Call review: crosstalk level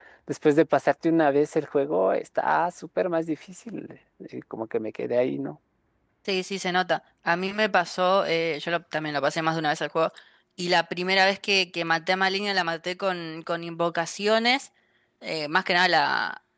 none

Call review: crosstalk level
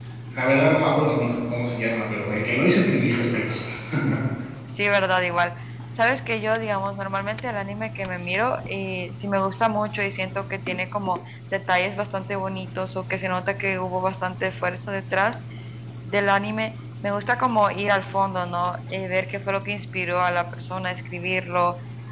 none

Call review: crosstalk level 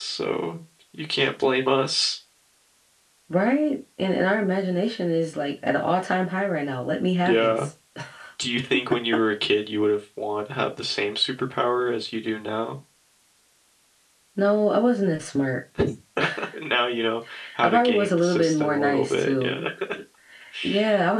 present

